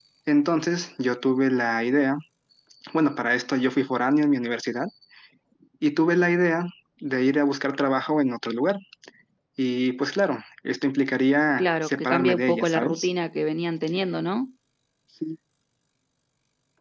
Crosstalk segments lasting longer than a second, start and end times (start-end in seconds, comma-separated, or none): 11.6-13.1